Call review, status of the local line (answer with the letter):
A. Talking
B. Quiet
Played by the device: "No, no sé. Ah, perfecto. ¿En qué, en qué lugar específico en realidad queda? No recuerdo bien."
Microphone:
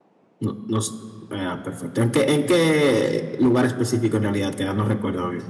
B